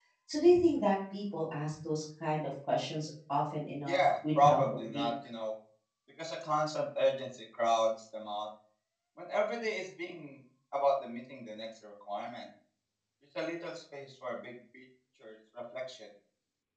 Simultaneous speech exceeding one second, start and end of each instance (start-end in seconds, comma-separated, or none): 3.9-5.1